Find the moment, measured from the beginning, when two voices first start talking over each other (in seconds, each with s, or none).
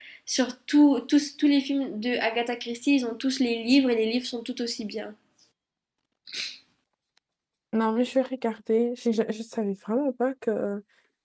none